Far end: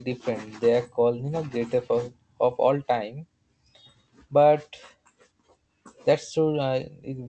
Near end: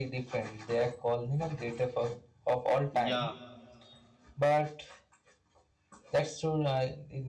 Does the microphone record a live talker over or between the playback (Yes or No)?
Yes